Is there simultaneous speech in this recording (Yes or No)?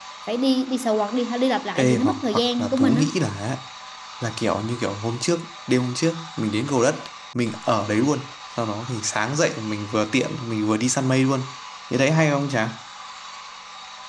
Yes